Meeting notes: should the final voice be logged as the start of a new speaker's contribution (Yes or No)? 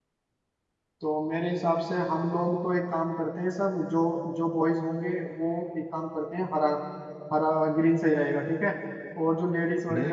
No